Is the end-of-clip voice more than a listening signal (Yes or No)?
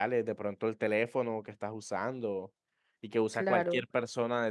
No